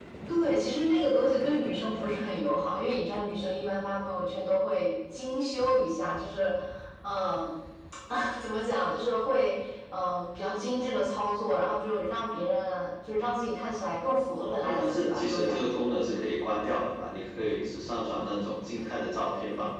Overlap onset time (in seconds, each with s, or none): 14.3 s